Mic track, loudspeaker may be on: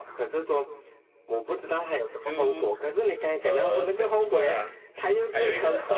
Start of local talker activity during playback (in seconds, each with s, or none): 2.2 s